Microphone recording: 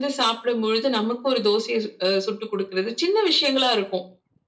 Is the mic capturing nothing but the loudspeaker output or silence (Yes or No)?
Yes